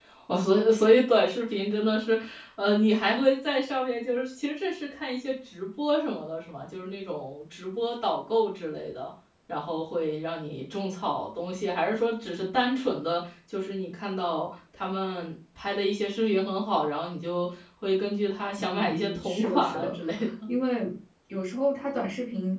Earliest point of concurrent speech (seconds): 18.6 s

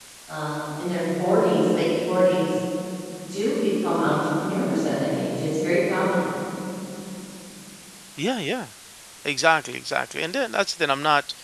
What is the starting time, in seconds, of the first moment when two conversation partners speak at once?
none

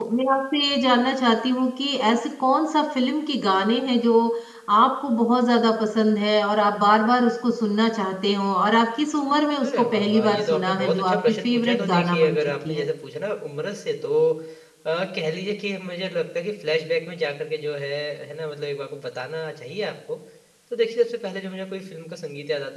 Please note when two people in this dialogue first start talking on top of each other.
9.6 s

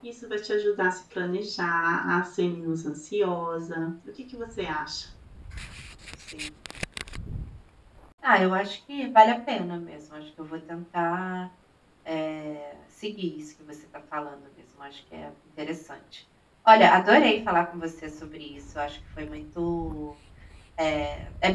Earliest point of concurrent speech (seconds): none

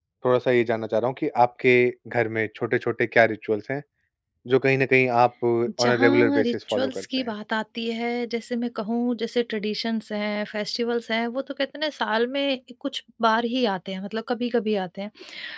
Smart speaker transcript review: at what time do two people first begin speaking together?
5.8 s

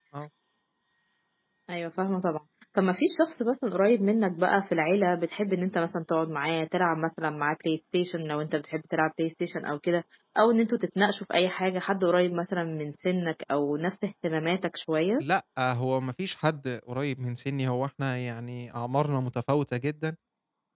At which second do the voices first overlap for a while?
none

